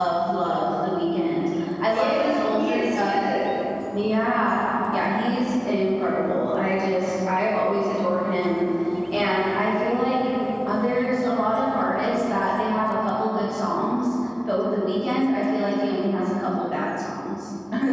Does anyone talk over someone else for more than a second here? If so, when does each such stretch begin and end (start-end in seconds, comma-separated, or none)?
1.8-3.1